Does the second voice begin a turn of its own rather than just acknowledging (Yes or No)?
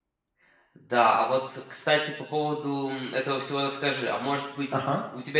No